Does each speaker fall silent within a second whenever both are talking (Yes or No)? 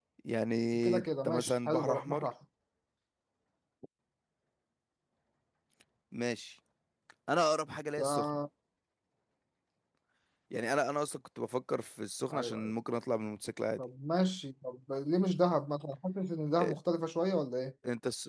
No